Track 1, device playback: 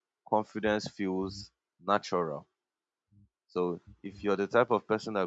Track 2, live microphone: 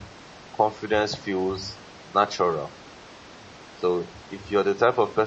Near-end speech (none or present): none